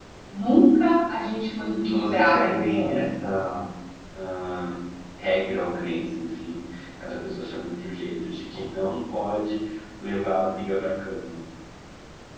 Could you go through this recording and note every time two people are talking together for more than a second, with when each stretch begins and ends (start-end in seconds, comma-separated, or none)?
1.6-2.9